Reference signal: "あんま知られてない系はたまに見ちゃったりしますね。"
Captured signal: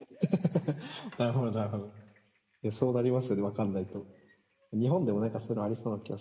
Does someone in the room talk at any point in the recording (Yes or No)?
Yes